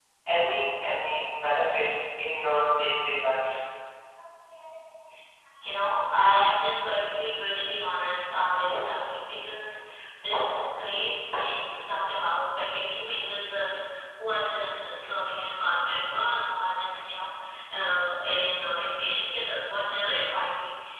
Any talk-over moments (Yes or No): No